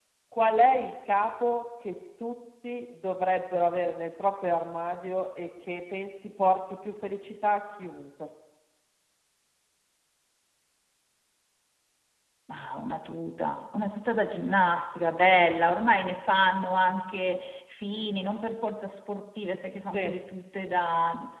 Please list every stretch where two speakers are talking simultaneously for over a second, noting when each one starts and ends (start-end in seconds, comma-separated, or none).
none